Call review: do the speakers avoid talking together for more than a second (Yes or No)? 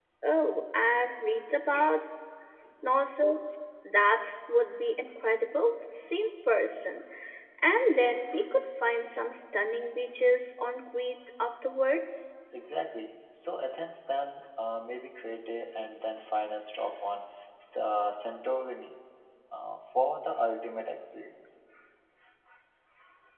Yes